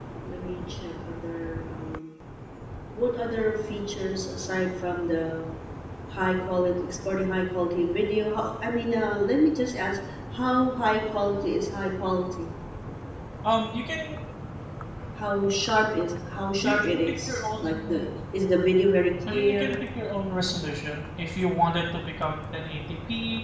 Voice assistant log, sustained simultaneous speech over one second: present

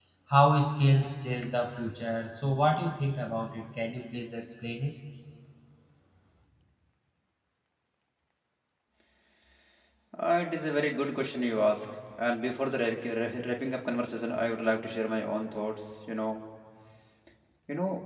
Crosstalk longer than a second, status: none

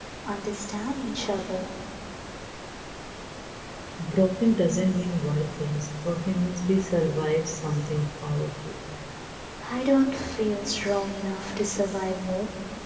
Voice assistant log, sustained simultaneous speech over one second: none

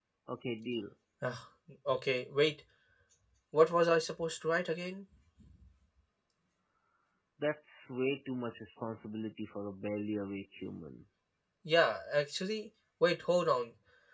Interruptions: none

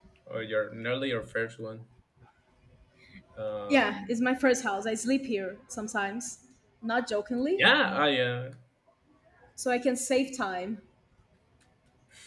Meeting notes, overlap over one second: none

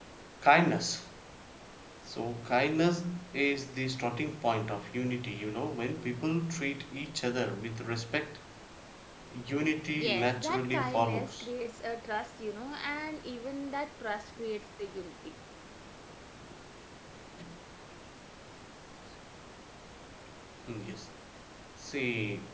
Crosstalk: present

